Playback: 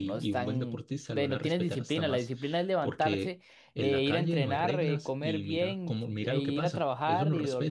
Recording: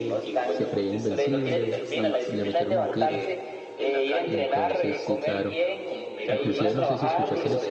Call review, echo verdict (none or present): present